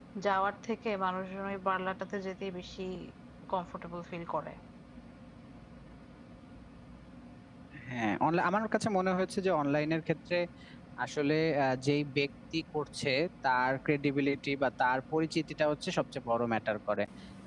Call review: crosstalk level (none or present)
none